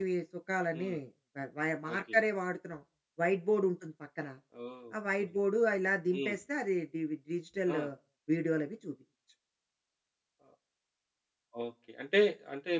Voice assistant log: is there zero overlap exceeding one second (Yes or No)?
Yes